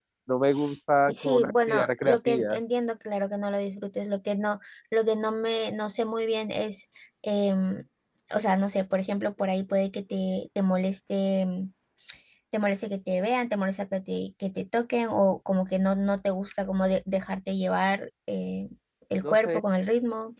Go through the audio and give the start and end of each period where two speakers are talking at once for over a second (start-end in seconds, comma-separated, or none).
1.1-2.5